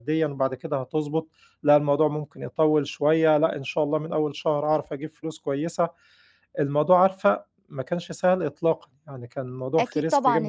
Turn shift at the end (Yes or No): Yes